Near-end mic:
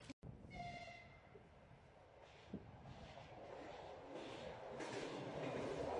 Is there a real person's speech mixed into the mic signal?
No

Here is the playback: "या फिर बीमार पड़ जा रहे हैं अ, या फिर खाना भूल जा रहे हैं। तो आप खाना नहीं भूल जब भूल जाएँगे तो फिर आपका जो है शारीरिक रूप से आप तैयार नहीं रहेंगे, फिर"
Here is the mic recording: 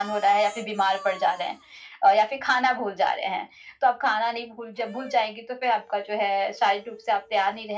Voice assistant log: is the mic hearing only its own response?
Yes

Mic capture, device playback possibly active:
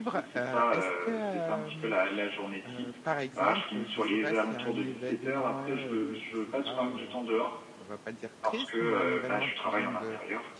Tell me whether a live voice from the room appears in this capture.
Yes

